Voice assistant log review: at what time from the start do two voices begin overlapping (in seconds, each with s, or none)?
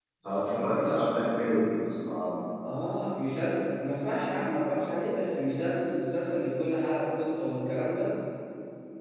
none